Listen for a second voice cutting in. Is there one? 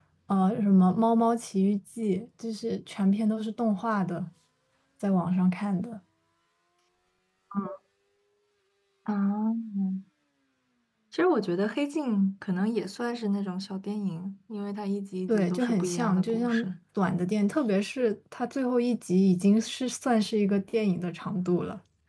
Yes, from 15.3 s

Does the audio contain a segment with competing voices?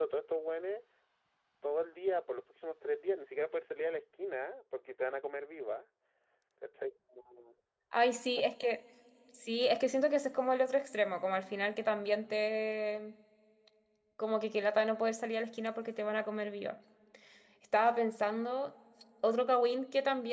No

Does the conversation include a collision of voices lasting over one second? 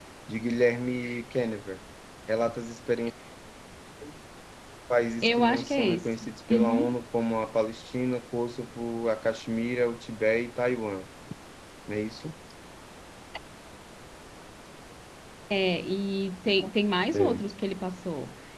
Yes, from 5.2 s

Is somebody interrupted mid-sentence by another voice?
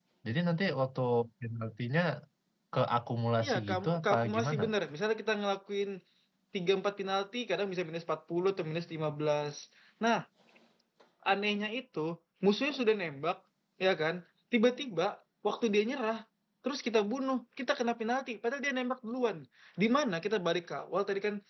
Yes, from 3.4 s

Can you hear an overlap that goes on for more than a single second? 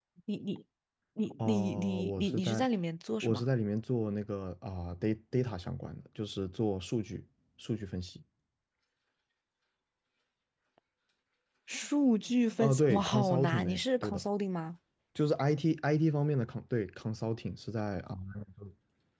Yes, from 1.4 s

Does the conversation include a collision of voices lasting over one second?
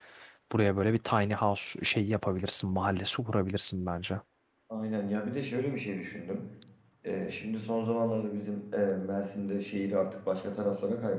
No

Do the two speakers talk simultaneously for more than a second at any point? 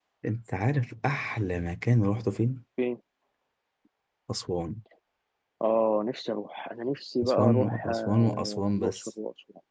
Yes, from 7.2 s

